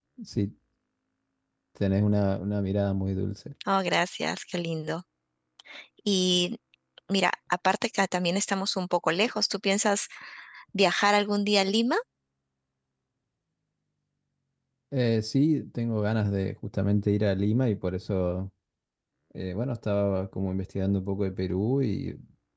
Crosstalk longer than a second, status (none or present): none